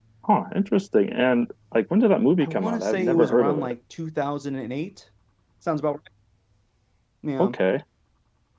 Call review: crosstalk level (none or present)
present